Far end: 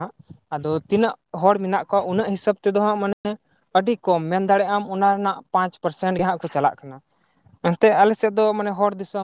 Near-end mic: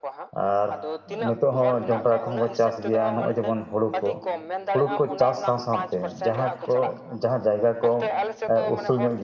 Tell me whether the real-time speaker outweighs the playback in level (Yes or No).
Yes